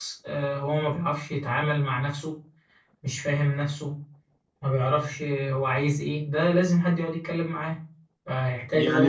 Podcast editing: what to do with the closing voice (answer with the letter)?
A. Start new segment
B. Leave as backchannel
A